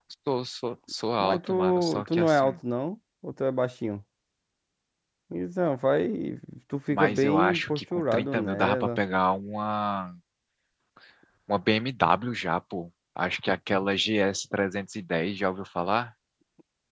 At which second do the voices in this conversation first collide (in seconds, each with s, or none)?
1.2 s